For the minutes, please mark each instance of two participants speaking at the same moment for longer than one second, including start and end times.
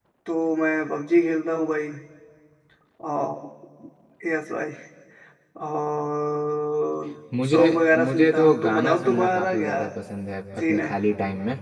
8.1-9.8

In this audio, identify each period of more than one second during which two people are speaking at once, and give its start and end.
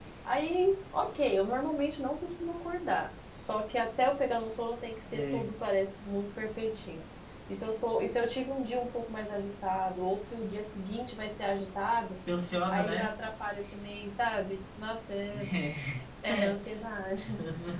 none

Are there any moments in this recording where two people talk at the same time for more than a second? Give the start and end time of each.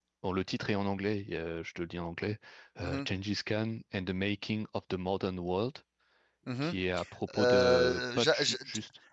7.3-8.6

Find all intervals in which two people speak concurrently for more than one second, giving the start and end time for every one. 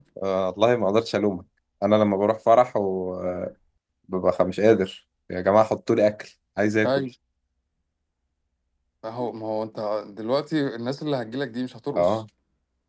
none

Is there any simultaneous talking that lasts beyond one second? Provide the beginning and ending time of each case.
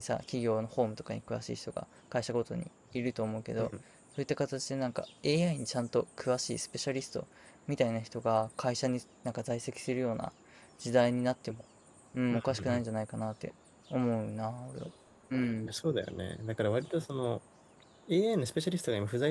none

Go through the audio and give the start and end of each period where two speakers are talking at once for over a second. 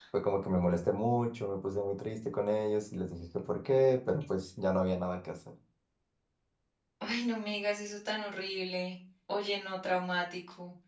none

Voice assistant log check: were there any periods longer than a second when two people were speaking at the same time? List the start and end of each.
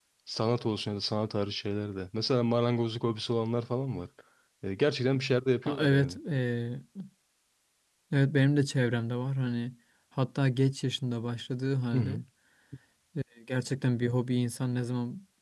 none

